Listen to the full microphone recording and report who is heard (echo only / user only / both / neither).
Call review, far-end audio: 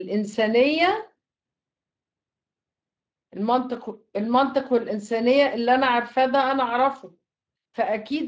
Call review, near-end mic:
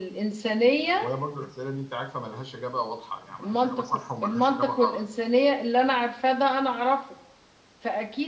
both